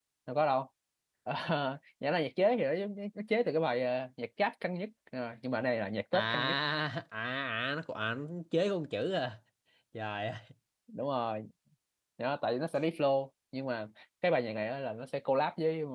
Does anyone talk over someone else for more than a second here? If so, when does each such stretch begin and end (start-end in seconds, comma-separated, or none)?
none